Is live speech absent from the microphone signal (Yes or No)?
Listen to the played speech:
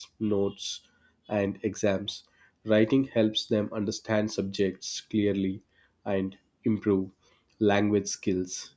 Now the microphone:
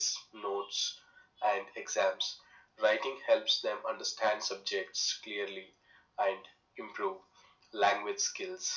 Yes